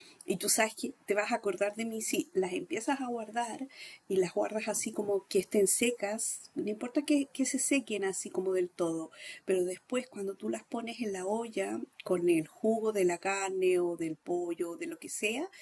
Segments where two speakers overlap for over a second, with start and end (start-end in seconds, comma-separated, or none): none